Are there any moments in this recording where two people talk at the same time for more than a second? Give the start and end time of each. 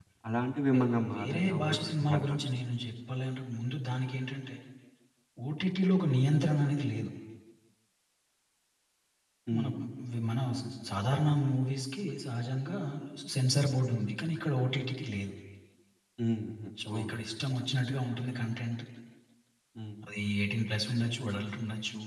0.7-2.3

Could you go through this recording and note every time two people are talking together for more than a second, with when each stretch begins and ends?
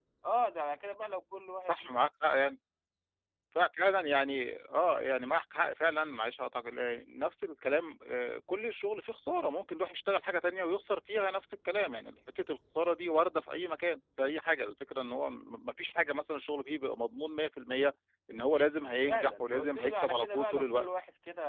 19.1-20.9

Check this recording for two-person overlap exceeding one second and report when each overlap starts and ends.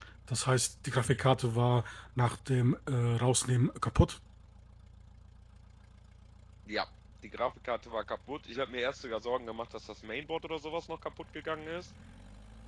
none

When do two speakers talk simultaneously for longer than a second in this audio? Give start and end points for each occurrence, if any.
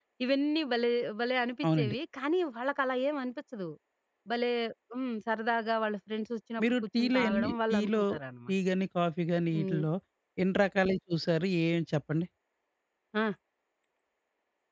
6.6-8.0

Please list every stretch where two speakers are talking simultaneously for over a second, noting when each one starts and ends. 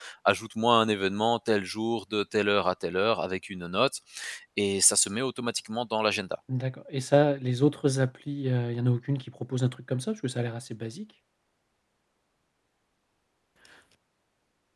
none

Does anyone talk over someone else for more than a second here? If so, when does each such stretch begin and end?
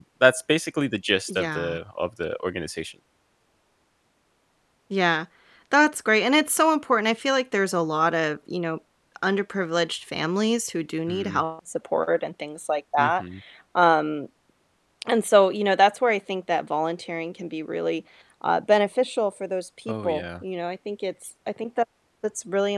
none

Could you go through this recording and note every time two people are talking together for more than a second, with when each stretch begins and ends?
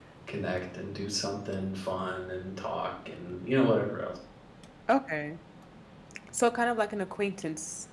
none

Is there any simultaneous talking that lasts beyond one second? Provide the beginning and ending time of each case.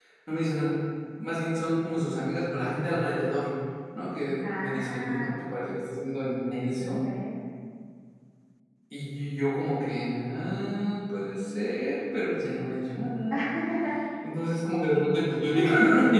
4.5-5.7

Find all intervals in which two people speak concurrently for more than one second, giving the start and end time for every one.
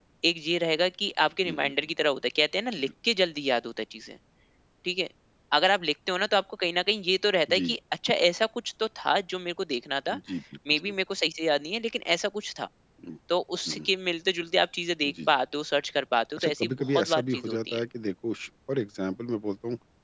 16.4-17.8

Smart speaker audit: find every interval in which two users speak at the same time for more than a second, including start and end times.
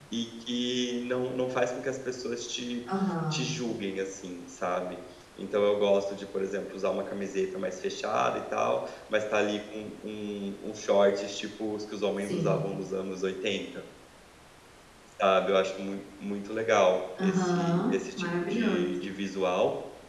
17.2-19.0

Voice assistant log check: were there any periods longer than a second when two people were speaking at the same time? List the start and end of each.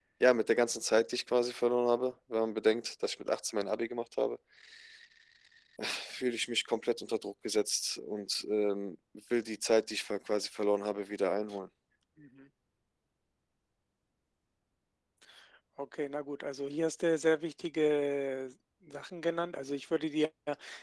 none

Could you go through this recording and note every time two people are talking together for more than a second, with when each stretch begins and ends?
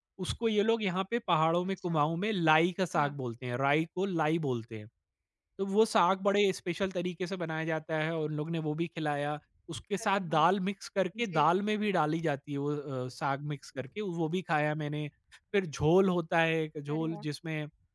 none

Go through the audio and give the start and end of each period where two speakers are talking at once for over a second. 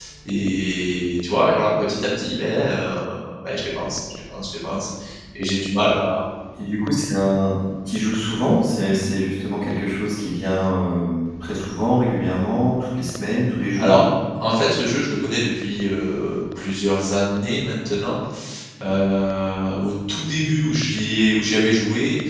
none

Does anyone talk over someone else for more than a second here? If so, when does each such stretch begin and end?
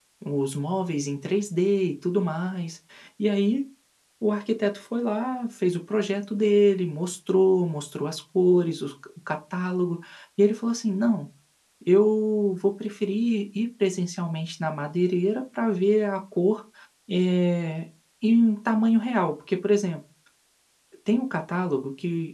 none

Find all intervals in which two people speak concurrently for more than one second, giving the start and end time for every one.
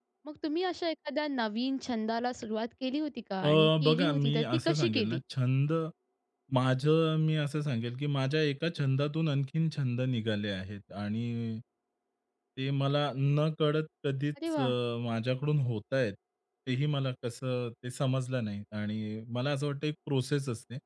3.5-5.2

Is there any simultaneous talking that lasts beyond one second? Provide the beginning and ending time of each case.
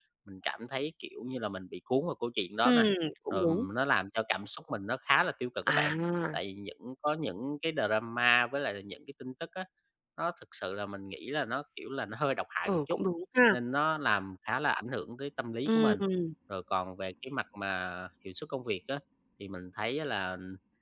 none

